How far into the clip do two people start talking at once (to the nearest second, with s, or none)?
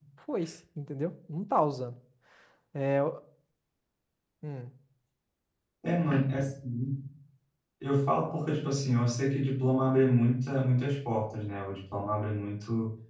none